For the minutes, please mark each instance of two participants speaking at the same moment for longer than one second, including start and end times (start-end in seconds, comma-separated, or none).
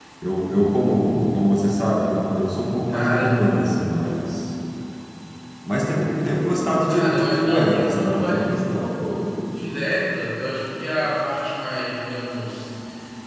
6.9-9.0